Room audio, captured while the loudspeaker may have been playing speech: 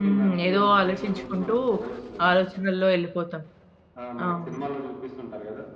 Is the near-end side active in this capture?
Yes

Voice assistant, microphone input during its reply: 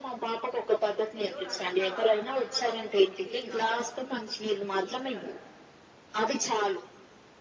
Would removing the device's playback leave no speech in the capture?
No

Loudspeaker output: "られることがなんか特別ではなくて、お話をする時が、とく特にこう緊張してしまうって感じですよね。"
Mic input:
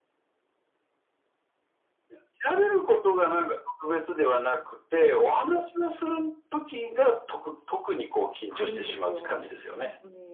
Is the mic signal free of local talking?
No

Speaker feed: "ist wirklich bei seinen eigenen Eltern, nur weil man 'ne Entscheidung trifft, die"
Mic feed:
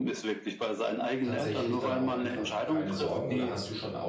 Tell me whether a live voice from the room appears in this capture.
Yes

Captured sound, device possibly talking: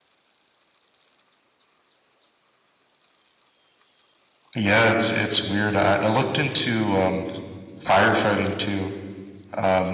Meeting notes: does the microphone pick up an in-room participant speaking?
Yes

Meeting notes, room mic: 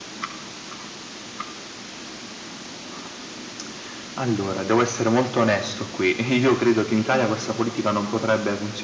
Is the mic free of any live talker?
Yes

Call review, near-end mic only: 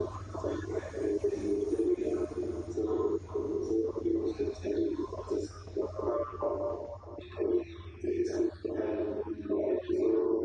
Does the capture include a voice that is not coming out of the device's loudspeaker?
No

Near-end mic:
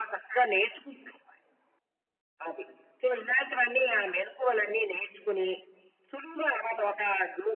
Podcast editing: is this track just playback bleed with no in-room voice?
Yes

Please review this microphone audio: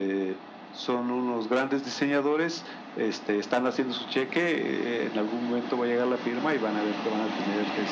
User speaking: No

